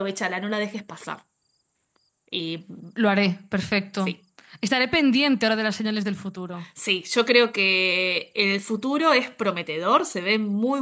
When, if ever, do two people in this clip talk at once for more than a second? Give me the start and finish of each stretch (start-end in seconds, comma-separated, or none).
none